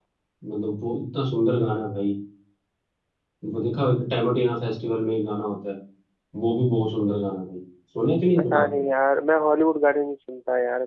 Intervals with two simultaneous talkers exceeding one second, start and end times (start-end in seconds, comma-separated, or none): none